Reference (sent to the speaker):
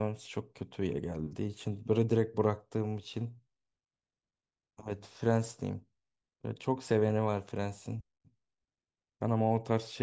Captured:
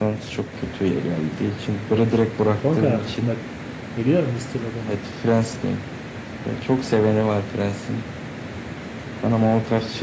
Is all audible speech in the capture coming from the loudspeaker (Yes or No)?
No